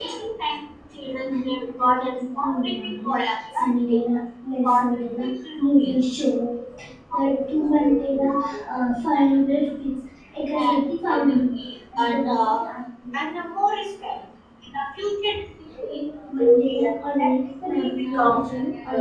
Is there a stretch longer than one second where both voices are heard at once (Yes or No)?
Yes